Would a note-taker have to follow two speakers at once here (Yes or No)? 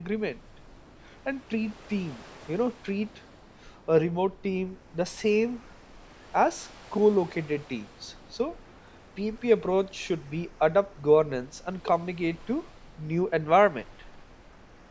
No